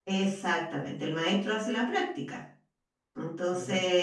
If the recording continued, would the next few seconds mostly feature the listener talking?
No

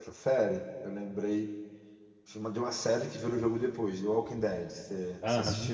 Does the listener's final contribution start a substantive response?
Yes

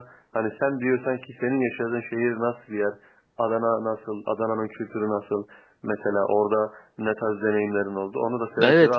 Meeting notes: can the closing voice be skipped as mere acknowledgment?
No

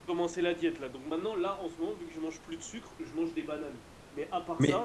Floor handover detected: No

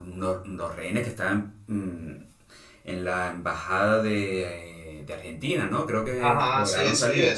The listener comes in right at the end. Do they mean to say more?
Yes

